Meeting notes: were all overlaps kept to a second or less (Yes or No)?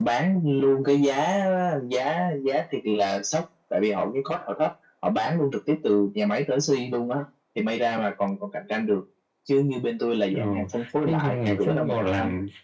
No